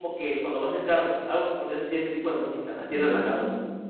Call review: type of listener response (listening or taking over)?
taking over